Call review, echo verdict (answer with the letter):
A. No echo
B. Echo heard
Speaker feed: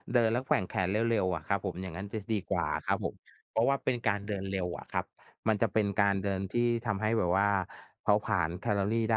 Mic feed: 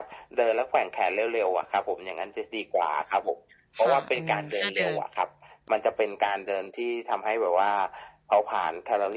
B